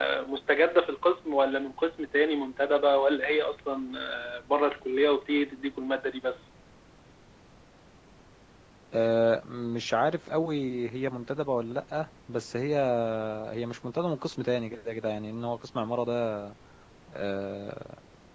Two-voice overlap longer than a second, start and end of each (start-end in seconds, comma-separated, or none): none